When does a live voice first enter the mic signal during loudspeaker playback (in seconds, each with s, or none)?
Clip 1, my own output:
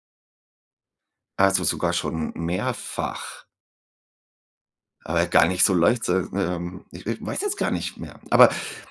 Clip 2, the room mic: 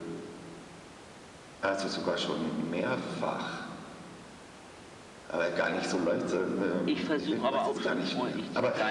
6.8 s